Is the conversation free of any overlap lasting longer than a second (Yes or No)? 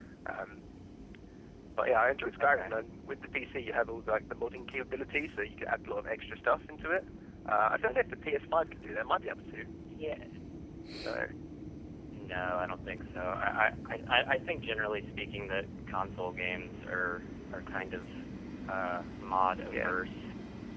Yes